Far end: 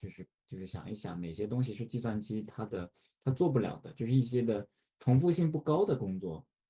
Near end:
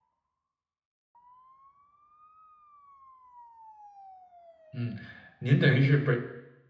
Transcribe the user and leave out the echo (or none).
嗯，您等于是本，